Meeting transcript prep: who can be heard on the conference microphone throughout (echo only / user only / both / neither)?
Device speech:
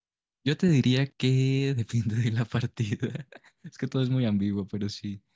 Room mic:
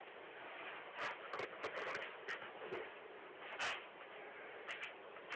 neither